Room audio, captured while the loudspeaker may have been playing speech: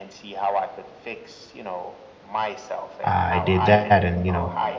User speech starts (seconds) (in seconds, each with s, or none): 3.0 s